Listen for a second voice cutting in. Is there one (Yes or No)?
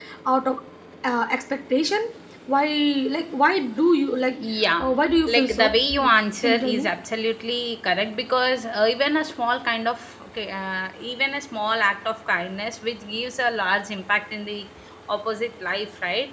Yes